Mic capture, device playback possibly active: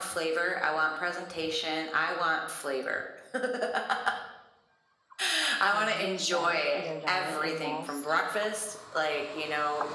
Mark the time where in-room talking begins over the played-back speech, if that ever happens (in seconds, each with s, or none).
5.7 s